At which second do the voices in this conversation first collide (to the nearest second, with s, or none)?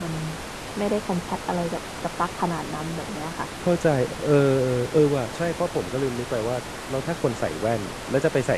none